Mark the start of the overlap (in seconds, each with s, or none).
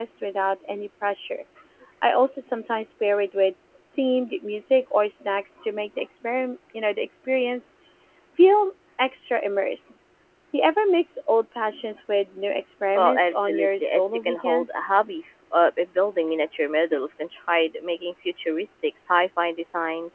12.9 s